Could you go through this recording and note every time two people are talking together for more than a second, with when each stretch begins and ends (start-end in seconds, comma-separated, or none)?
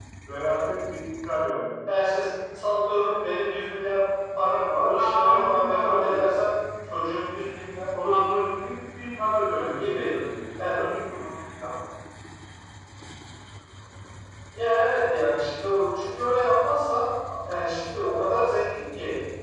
4.8-6.2